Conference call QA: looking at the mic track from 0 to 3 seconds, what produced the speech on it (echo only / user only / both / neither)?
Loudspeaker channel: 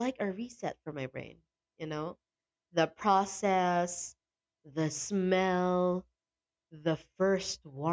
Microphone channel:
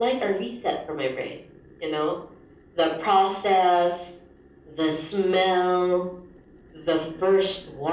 echo only